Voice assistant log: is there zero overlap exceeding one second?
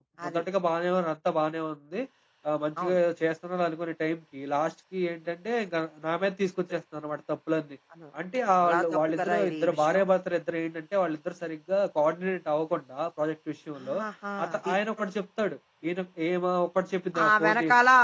No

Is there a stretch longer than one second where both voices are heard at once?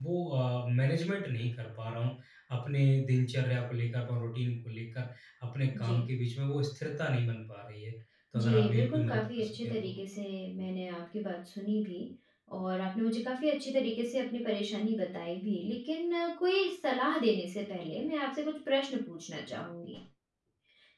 Yes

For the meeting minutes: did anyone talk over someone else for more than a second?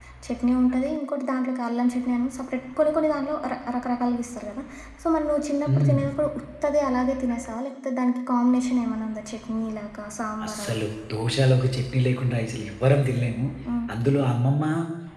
No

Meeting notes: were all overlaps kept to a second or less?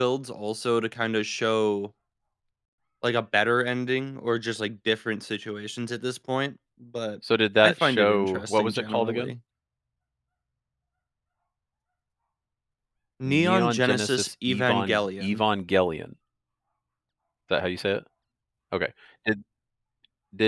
No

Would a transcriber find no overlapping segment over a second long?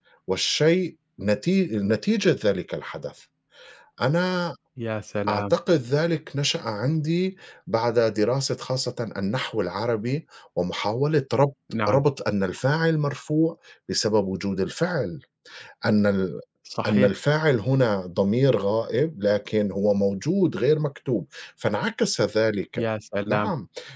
Yes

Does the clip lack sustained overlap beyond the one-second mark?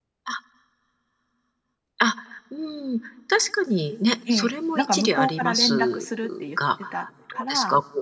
No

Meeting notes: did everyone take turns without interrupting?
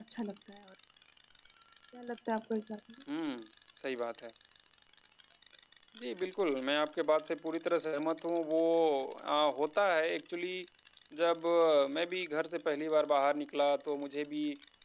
Yes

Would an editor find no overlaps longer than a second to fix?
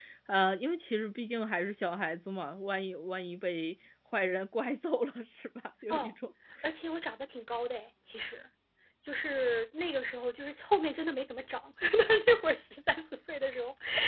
Yes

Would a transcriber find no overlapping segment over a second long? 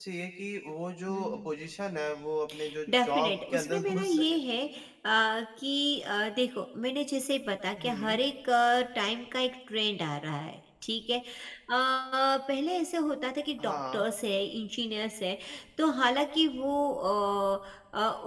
No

